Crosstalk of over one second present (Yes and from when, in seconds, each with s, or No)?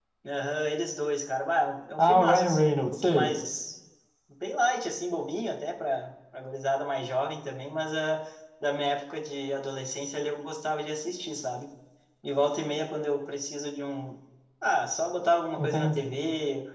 Yes, from 2.0 s